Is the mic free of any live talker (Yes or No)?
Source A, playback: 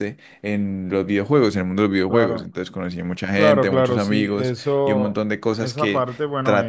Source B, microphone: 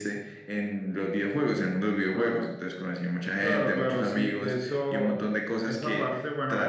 No